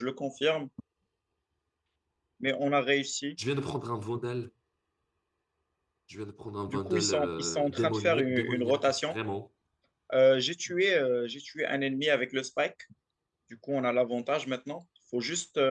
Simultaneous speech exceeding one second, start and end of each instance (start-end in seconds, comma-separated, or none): 6.7-9.2